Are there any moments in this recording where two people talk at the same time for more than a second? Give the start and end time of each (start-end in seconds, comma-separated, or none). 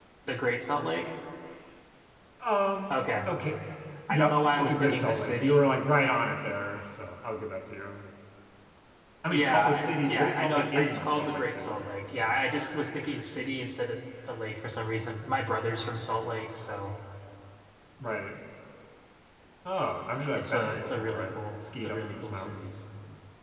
4.1-5.6, 9.3-12.4, 20.3-22.7